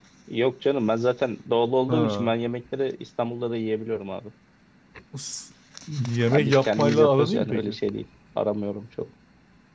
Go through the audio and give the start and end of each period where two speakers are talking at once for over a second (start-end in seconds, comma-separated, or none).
6.3-7.8